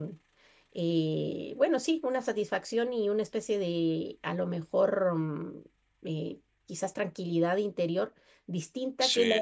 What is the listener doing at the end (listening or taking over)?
listening